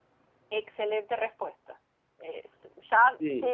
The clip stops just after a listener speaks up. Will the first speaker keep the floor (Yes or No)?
Yes